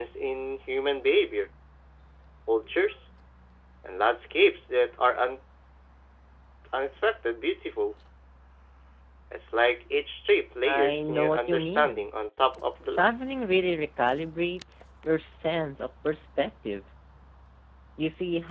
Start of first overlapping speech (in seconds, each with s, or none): 10.6 s